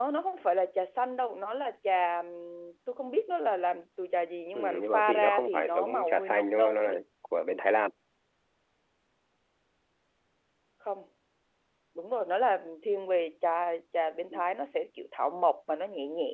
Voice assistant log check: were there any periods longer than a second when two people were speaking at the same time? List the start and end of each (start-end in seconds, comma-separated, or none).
4.5-7.0